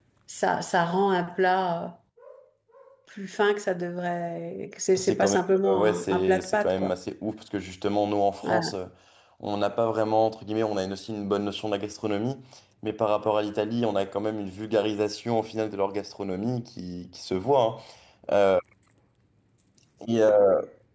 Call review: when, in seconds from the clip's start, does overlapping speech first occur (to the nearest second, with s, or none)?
5 s